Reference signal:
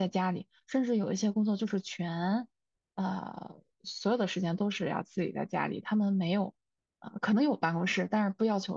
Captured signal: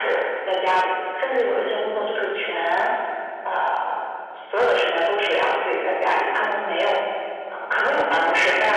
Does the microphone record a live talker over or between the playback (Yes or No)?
No